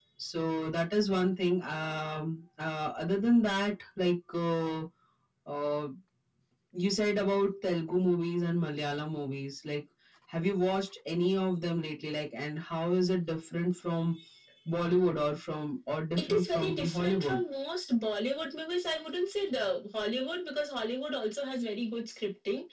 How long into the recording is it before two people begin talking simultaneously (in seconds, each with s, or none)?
16.2 s